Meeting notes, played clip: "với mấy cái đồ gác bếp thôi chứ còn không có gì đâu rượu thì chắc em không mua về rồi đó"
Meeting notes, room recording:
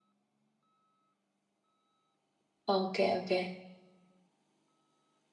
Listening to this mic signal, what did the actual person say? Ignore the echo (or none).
Ok ok.